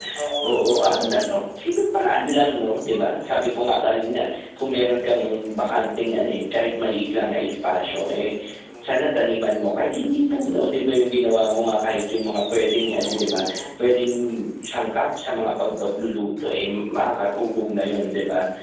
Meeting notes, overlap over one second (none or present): none